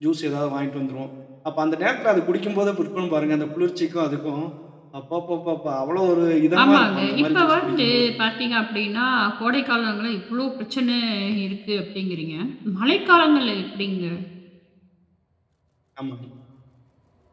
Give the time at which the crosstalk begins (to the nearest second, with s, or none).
7 s